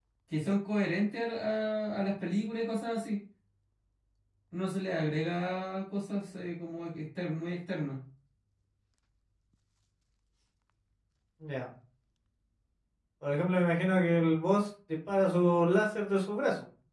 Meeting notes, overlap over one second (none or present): none